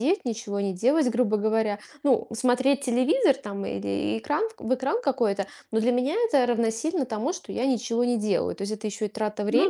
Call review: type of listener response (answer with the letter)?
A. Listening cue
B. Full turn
A